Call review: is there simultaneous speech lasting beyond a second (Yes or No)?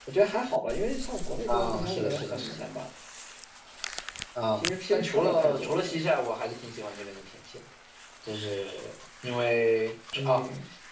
Yes